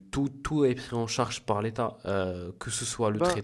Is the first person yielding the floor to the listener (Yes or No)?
No